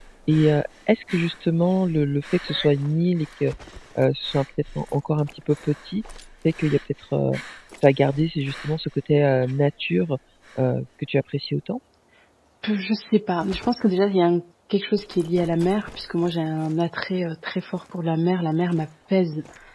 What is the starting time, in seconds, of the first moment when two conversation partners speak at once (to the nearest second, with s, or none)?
none